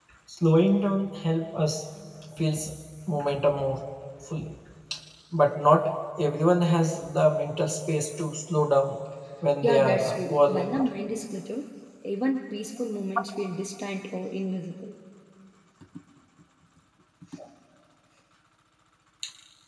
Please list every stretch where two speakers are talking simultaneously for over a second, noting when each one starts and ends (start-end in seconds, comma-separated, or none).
9.6-10.9